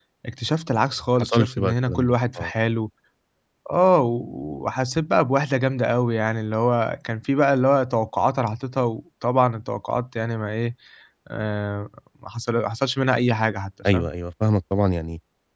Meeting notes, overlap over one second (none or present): present